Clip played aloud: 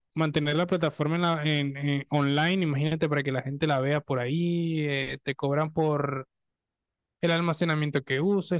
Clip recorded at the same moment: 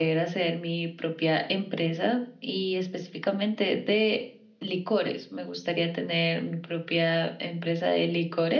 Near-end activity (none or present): present